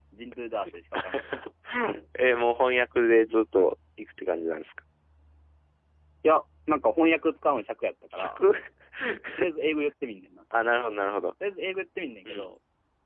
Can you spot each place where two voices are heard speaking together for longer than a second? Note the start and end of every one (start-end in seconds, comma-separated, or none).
none